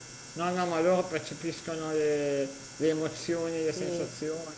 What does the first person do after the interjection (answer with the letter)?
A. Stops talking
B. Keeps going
B